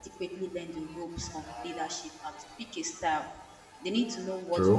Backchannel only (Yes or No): Yes